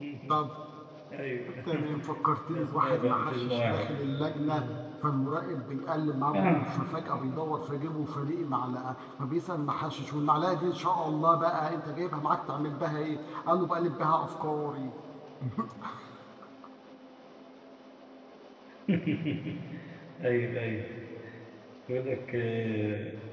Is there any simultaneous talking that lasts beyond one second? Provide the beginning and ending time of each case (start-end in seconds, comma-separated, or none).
2.5-3.9